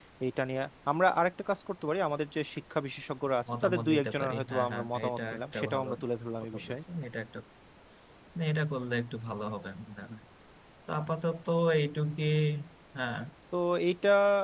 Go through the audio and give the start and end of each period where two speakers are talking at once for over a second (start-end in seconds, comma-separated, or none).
3.5-5.9